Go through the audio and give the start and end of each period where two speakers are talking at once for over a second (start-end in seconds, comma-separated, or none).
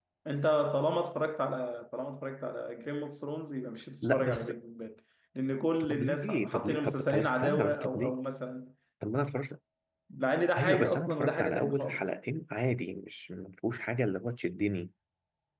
5.9-8.2, 10.6-12.1